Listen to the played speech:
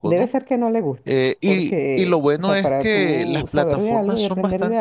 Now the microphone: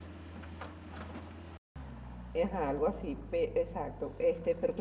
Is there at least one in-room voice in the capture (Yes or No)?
Yes